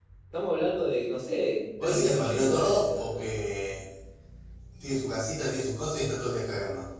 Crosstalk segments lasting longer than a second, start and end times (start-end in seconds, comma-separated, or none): 1.8-3.2